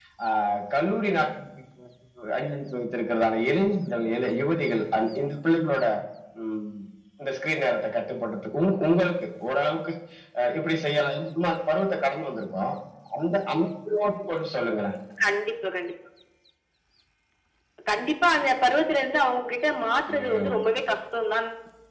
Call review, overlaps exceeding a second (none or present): none